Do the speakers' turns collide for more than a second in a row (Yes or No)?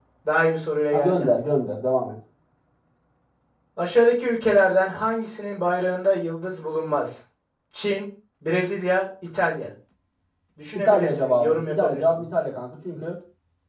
Yes